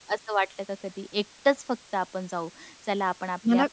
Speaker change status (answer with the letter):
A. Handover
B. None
B